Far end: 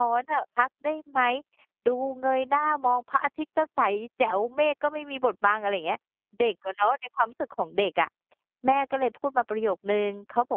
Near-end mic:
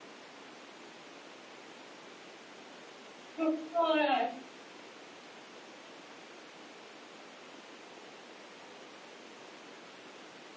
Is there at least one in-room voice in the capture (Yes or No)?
Yes